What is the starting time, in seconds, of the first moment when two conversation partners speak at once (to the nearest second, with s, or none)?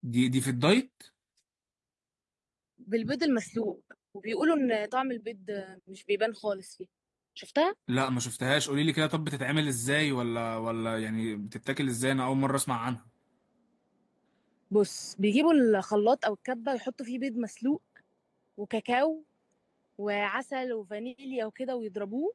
none